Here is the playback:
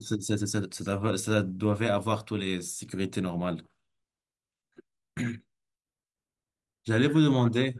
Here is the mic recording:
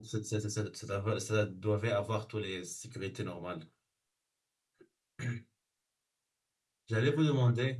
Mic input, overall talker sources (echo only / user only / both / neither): echo only